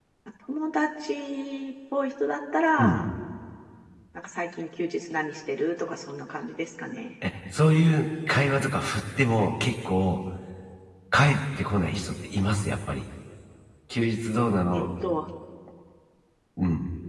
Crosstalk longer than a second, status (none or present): none